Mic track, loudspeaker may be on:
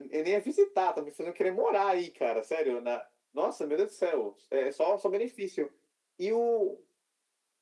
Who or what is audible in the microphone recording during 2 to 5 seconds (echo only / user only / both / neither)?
echo only